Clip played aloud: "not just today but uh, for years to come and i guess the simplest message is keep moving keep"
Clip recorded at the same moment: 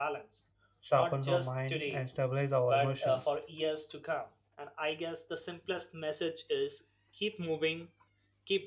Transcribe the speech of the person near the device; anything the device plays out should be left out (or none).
sharpens our mind, and stabilizes our emotions.